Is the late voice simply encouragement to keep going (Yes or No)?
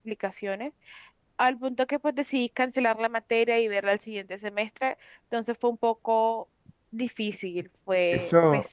No